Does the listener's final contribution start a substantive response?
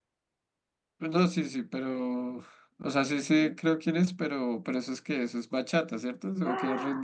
Yes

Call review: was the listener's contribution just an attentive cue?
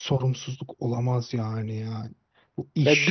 No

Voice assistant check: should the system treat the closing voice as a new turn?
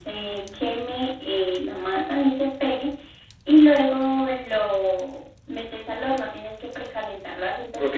Yes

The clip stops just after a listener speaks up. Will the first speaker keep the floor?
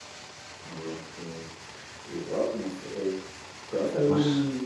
Yes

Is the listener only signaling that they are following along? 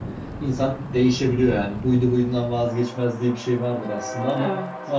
Yes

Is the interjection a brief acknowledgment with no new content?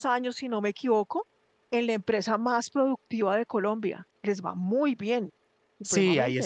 No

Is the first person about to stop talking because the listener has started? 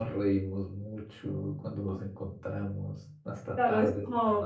Yes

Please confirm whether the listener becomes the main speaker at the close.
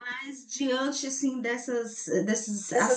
No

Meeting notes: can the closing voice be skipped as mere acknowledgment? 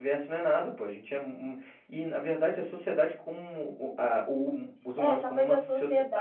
No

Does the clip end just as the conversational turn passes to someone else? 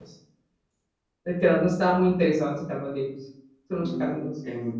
Yes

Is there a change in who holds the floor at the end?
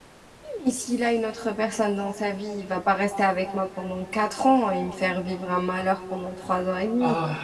Yes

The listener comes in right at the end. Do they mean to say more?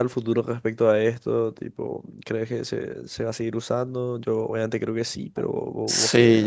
Yes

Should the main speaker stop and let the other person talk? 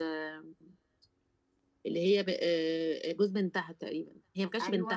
Yes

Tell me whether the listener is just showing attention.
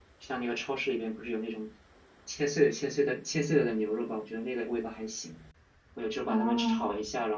Yes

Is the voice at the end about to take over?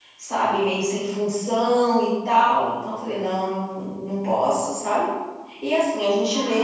No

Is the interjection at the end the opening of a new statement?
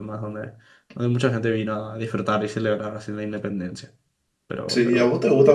Yes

